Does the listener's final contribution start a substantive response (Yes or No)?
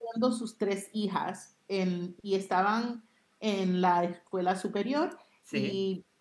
No